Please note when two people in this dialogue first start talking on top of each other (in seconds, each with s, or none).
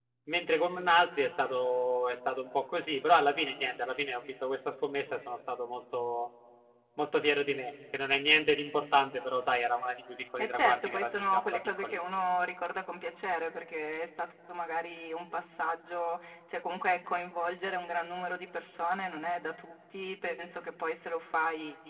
10.4 s